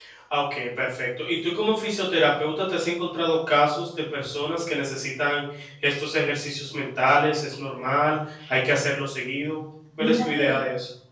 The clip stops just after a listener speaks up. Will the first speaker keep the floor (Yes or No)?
No